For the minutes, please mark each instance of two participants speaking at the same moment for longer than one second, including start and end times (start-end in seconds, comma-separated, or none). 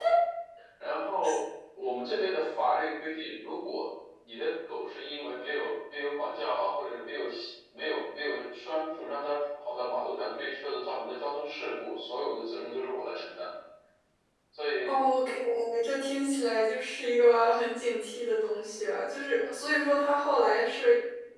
none